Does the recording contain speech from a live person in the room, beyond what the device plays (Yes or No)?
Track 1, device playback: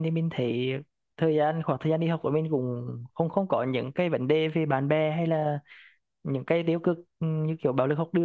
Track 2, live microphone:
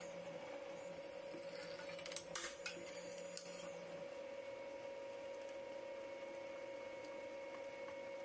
No